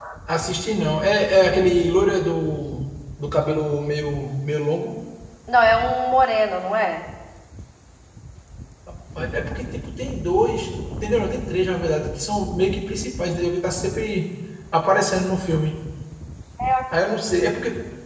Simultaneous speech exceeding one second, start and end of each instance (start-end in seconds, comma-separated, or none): none